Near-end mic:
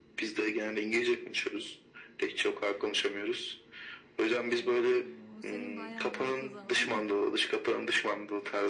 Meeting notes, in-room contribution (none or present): present